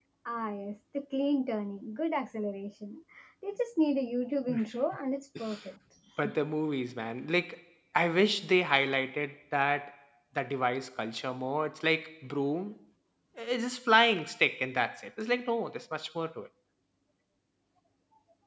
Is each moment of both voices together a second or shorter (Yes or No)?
Yes